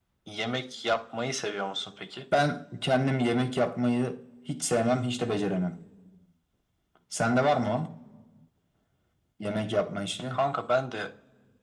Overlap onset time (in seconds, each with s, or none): none